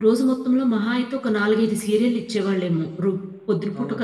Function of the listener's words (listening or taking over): taking over